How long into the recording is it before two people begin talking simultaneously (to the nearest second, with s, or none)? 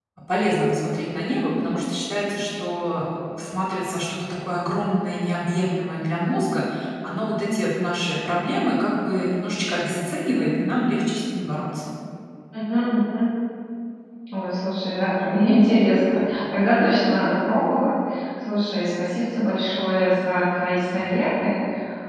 none